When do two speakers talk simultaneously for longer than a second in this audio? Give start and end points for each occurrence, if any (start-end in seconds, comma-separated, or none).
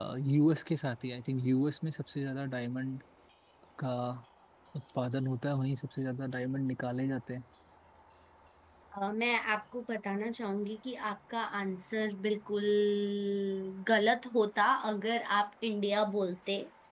none